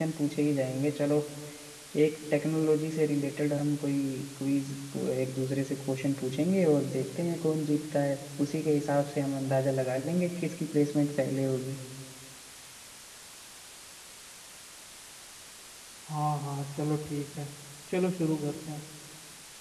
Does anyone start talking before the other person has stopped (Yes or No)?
No